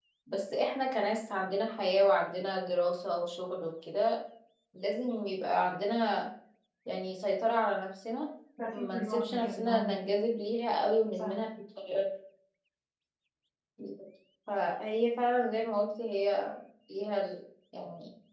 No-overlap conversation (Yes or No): No